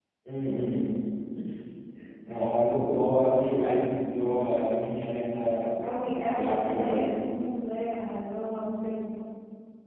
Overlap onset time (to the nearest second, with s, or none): 6 s